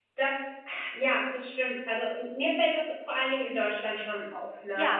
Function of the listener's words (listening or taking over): listening